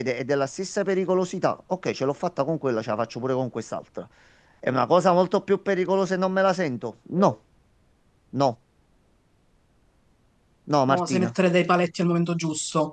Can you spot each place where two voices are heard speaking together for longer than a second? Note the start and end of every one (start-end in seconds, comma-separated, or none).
none